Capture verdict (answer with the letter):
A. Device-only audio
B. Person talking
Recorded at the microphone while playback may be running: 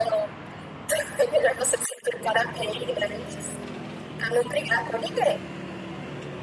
A